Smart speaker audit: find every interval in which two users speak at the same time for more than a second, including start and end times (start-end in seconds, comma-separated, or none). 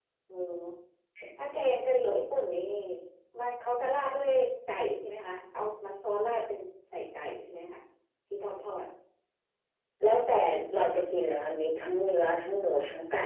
none